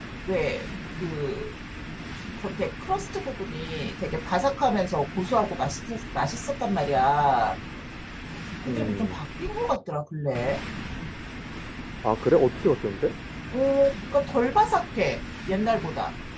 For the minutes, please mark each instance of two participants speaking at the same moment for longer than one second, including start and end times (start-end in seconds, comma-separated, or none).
none